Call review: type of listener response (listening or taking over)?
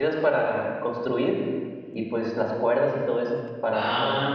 taking over